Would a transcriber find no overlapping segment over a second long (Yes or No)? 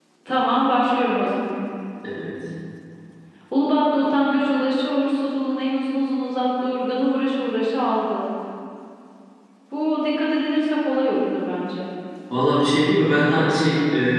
Yes